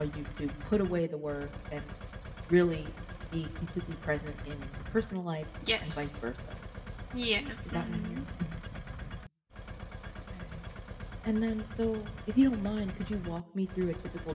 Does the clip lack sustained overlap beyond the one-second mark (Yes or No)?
Yes